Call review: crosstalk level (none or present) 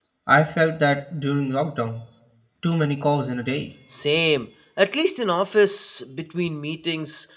none